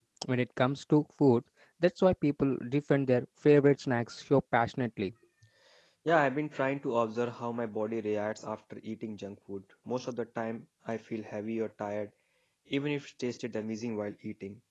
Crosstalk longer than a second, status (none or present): none